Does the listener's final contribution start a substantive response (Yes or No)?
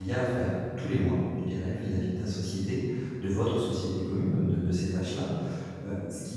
No